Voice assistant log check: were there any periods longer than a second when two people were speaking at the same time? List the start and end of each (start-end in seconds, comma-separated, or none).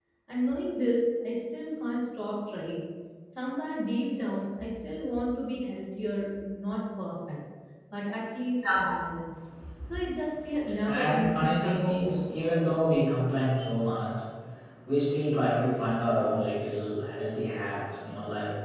10.8-12.2